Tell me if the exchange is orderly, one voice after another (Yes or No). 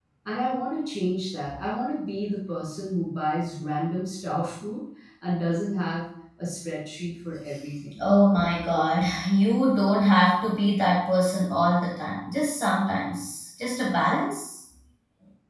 Yes